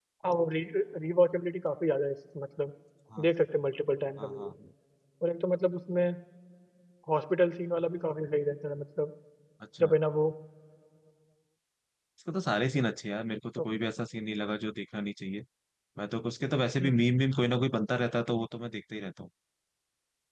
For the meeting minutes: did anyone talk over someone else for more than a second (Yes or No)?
No